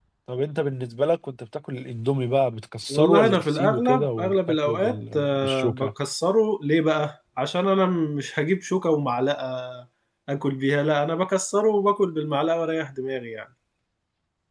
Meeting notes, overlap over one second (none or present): present